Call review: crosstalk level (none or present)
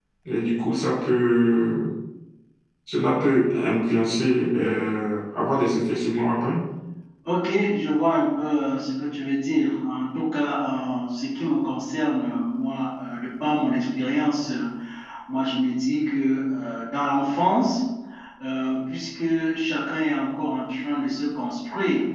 none